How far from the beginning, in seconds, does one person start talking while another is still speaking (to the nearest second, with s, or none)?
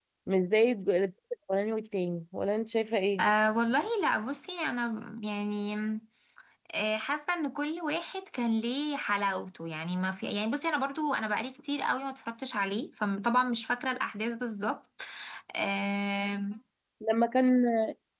none